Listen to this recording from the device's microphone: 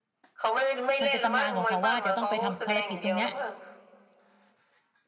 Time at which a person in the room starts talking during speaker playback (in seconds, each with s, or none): 1.0 s